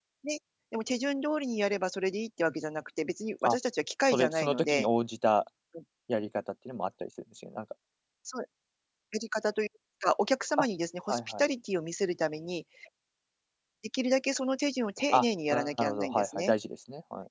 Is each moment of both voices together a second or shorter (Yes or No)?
No